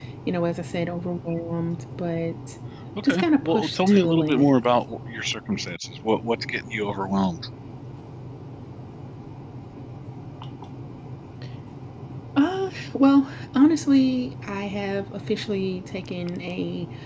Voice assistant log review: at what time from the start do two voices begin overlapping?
3.1 s

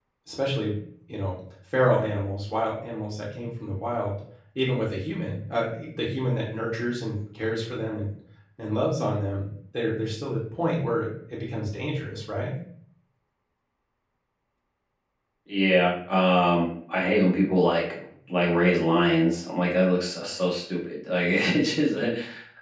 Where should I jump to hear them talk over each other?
none

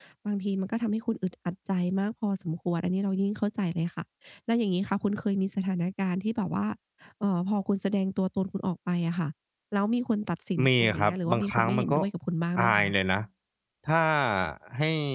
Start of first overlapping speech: 10.7 s

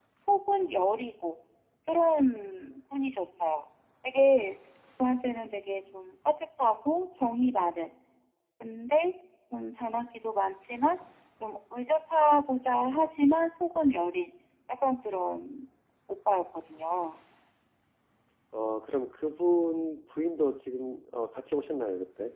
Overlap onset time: none

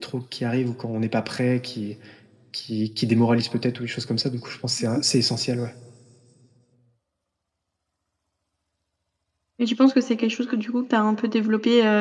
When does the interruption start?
none

